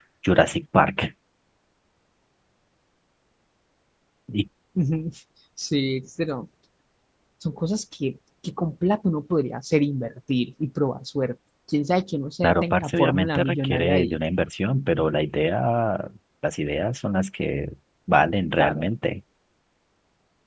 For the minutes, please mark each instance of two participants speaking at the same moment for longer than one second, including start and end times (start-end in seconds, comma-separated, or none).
12.4-14.2